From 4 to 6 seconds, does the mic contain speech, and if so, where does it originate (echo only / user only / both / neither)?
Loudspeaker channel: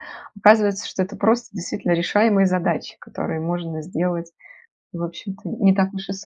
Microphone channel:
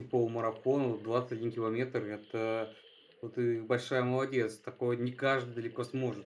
user only